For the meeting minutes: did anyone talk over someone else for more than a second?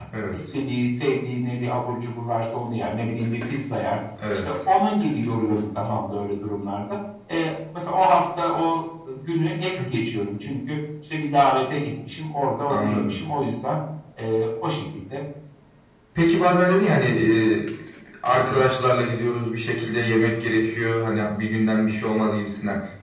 No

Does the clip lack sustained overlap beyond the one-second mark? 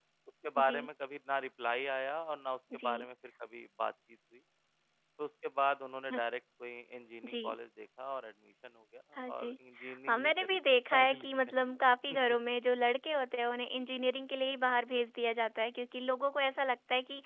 No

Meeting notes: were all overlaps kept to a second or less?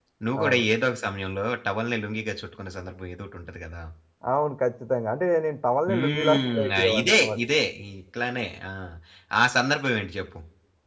No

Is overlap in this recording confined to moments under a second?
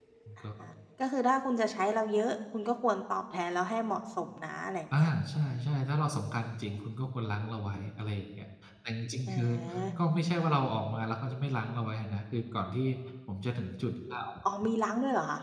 Yes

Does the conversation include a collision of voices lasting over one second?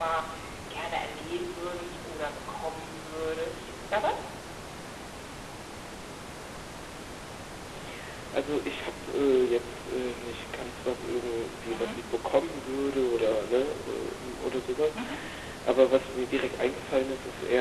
No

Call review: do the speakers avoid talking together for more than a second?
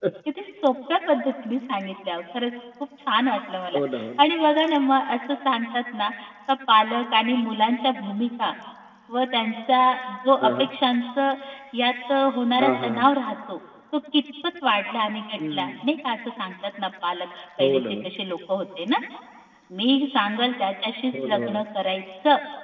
Yes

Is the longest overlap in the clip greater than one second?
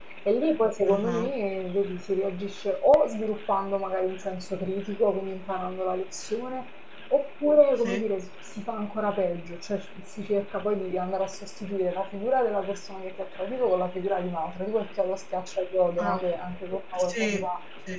No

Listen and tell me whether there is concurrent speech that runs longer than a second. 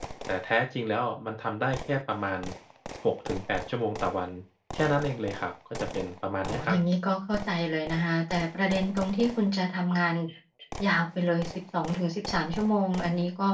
No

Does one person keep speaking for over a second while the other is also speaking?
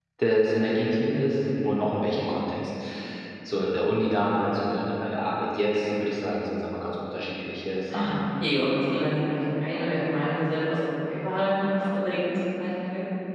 No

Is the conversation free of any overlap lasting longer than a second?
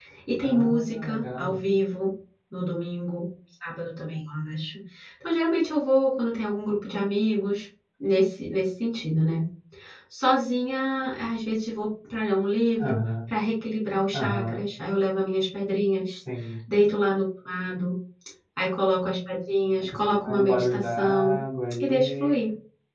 No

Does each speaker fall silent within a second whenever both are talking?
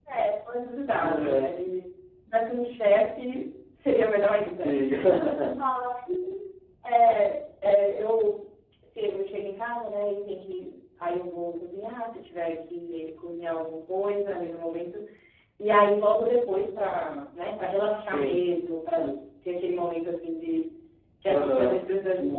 Yes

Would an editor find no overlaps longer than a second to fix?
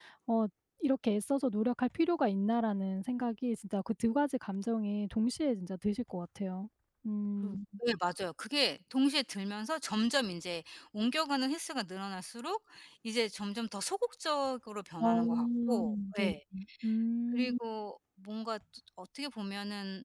No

